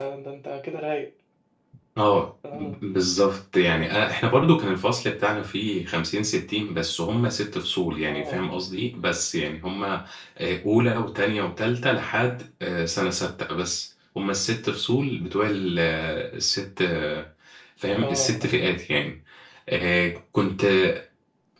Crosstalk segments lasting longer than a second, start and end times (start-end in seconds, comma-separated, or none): none